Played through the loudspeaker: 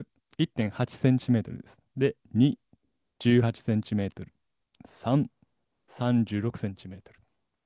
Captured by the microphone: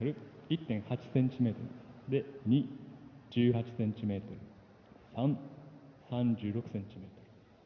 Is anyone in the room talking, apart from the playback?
No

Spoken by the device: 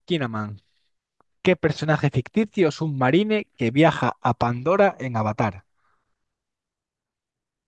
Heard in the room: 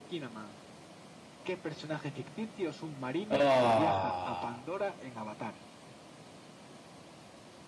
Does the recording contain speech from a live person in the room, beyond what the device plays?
Yes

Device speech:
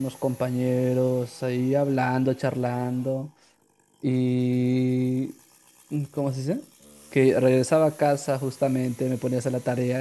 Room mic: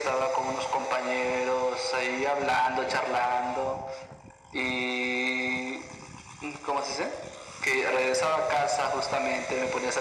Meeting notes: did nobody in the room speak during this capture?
Yes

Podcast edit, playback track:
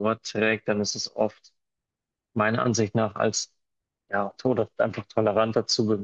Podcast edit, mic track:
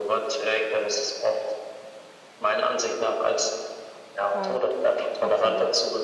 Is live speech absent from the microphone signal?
No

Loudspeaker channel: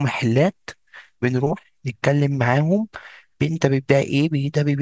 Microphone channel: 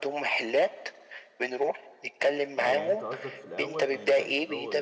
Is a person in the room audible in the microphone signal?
Yes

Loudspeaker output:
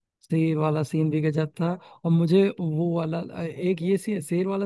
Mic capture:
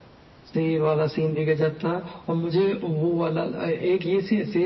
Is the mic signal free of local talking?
Yes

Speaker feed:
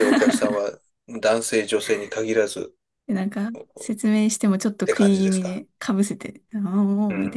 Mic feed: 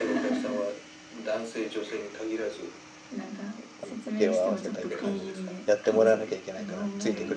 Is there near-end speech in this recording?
Yes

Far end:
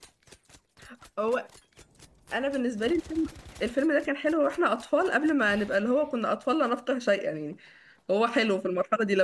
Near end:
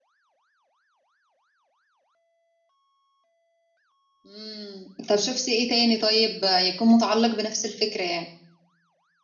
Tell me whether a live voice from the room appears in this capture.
Yes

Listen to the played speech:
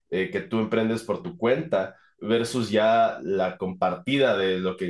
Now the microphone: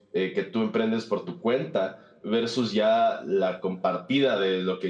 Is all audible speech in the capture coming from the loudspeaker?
Yes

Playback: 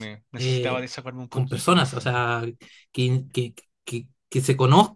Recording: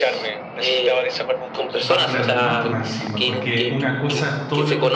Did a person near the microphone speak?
Yes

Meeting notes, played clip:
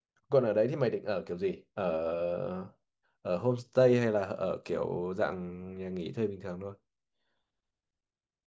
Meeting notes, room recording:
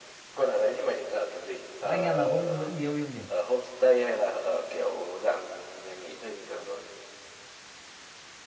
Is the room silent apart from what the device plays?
No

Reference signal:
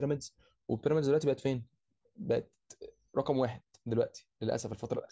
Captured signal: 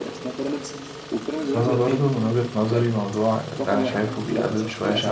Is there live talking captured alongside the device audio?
Yes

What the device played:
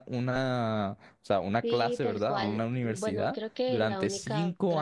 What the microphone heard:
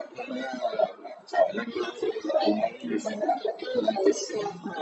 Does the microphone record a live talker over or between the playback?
No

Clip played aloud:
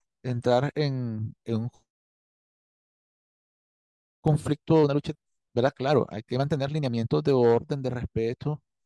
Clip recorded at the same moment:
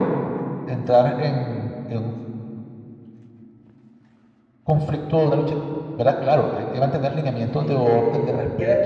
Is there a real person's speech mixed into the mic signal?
Yes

